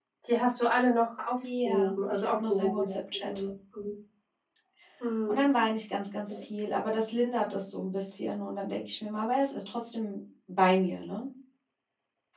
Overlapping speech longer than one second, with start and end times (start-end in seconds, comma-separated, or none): 1.6-3.3